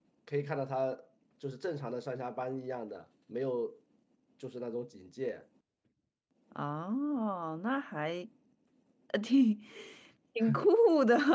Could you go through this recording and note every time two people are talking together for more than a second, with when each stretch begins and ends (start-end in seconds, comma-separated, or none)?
none